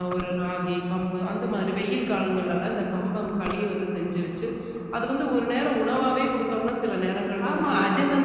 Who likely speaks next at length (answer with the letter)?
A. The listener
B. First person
A